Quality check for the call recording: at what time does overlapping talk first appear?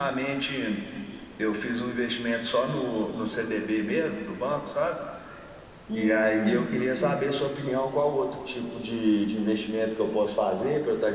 5.9 s

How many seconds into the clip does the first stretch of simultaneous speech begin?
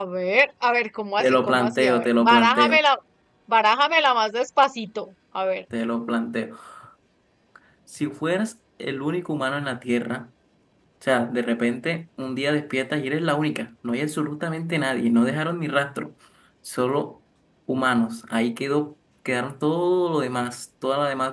1.2 s

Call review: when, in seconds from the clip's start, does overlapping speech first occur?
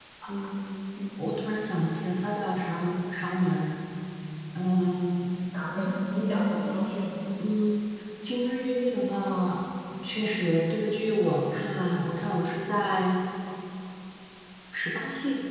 none

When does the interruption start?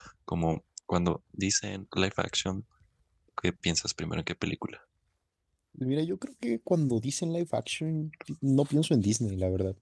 none

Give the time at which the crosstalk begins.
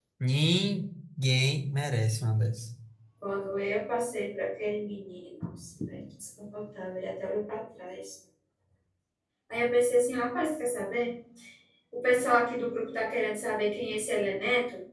none

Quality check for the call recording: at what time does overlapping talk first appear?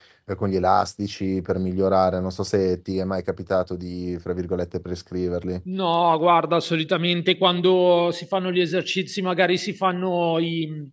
none

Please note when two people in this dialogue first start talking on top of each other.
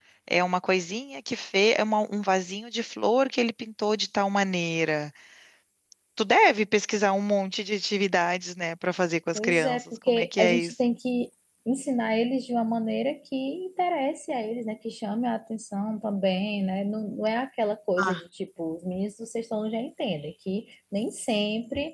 9.3 s

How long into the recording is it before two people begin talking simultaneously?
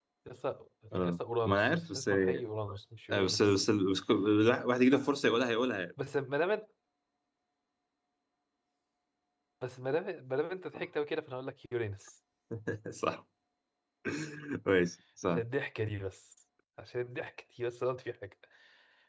1.0 s

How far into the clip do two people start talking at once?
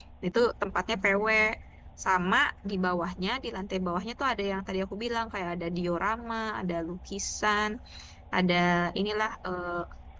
none

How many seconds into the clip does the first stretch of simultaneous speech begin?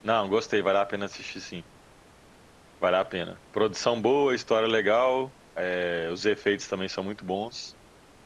none

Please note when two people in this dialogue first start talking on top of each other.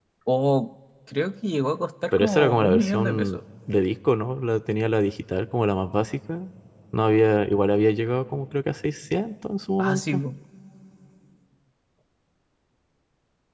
2.1 s

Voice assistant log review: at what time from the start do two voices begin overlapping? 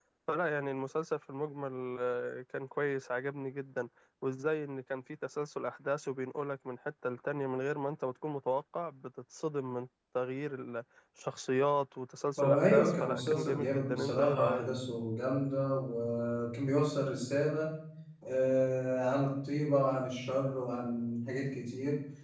12.4 s

